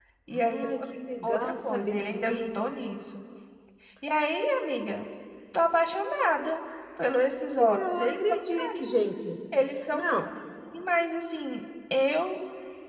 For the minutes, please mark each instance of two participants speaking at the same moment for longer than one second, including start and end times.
1.2-2.4, 7.6-9.0

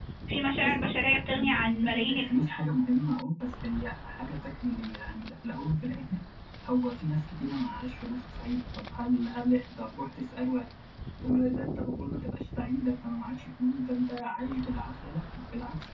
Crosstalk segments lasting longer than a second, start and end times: 0.6-2.5

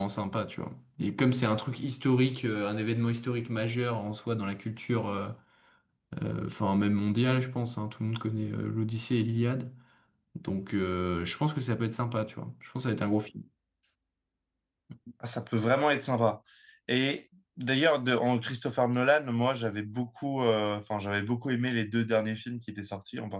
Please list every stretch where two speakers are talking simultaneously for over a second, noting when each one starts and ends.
none

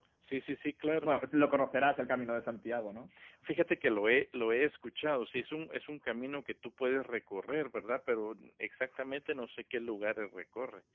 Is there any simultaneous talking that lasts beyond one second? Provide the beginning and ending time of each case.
none

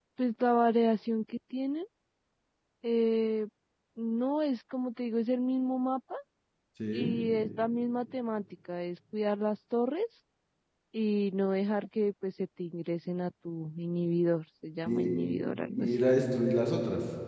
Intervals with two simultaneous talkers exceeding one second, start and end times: none

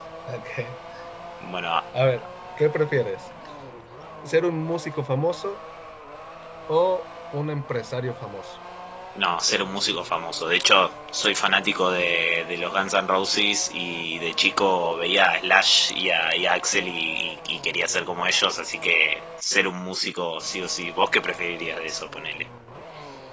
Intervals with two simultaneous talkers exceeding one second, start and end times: none

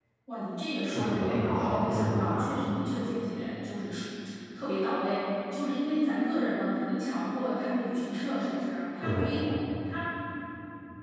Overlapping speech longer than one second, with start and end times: 0.9-2.5

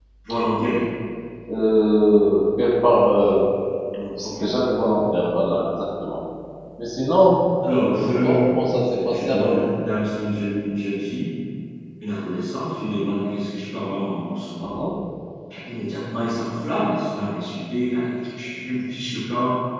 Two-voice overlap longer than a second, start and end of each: 7.8-9.6

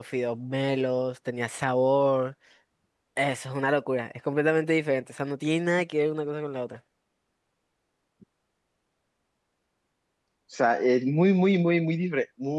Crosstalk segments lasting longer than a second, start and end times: none

